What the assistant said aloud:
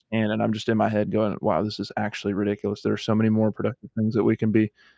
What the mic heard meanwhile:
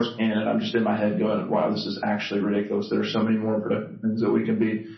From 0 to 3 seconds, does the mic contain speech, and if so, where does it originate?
echo only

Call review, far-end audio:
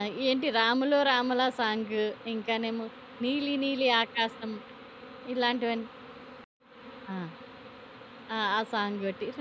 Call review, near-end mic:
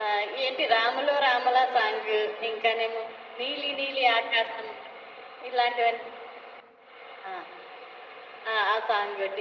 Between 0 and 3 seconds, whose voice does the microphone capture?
echo only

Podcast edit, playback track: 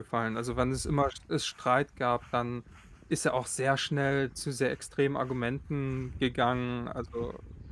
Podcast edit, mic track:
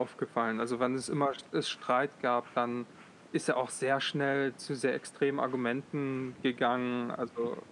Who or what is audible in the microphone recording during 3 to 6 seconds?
echo only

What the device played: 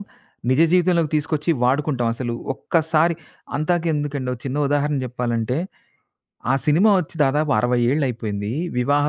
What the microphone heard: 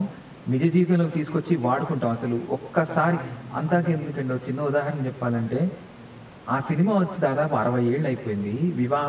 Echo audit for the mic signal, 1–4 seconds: both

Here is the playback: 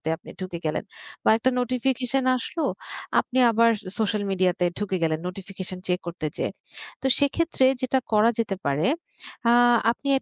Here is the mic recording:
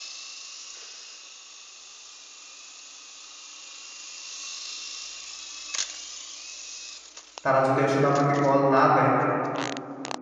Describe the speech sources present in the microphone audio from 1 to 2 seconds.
neither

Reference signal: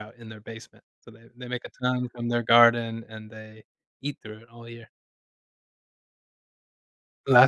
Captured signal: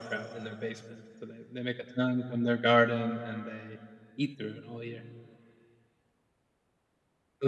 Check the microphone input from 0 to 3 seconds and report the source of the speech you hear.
echo only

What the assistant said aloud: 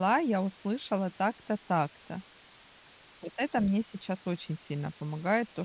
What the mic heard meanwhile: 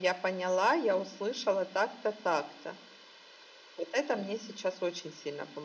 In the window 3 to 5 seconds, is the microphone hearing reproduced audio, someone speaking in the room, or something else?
echo only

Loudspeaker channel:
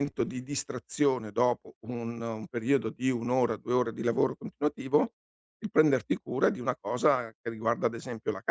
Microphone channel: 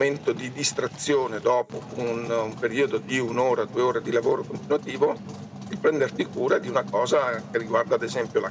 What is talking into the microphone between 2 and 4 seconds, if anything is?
echo only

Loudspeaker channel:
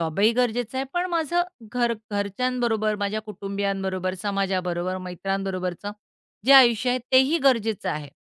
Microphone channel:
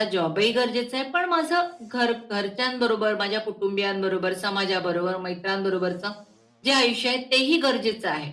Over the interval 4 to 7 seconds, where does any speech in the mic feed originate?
echo only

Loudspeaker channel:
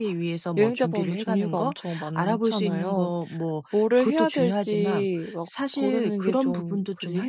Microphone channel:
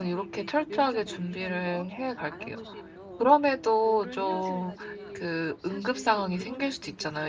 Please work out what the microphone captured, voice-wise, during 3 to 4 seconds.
both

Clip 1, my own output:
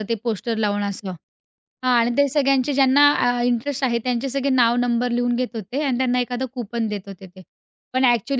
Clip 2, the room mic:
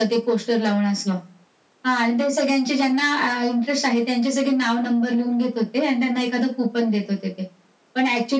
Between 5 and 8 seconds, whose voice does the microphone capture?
echo only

